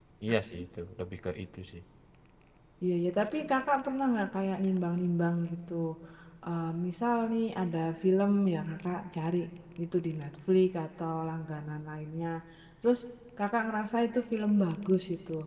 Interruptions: none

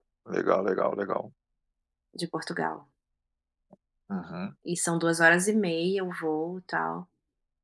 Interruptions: none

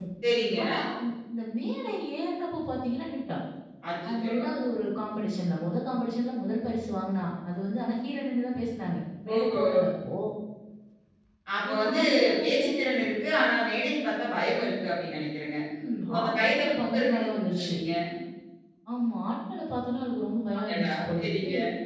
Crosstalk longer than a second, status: present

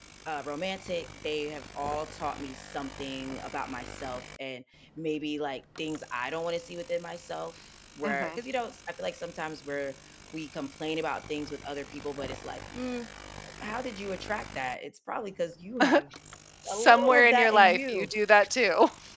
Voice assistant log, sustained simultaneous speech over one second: present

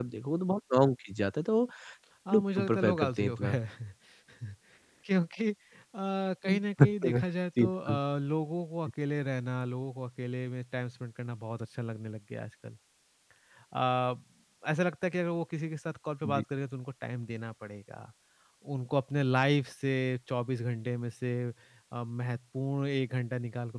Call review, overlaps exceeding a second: present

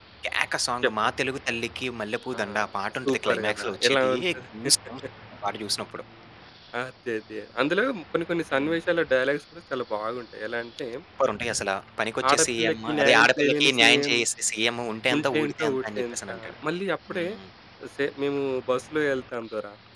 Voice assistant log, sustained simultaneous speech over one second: present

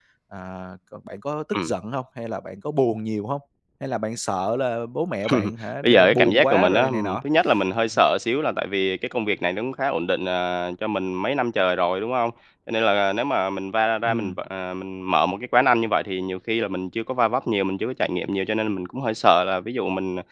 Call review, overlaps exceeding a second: present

